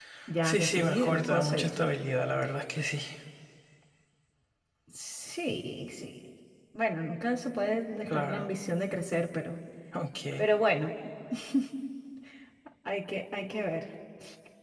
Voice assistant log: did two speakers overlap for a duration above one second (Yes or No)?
Yes